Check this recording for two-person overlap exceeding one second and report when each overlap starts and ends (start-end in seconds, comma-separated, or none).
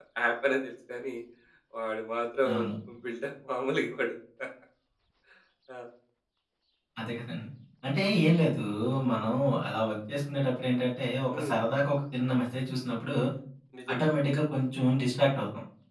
none